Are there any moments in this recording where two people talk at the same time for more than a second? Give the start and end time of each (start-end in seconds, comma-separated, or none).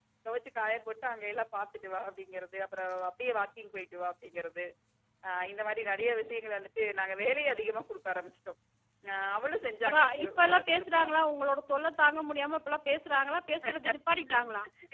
9.8-11.1